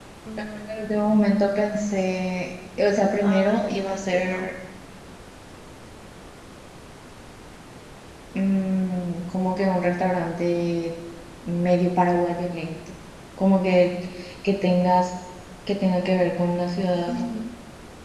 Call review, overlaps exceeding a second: present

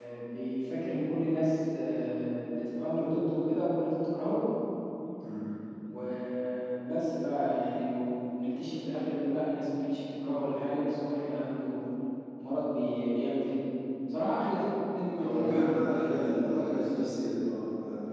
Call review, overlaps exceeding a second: present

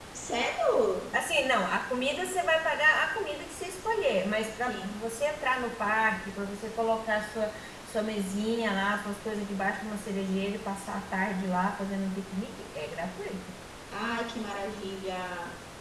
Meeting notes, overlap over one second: none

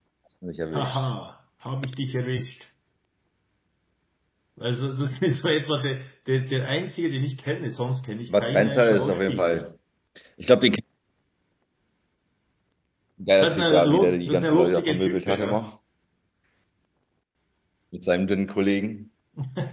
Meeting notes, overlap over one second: present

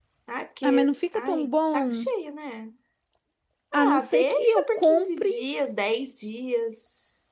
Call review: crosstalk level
present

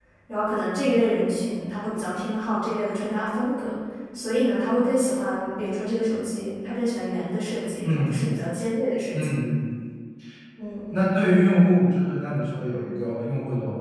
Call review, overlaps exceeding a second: none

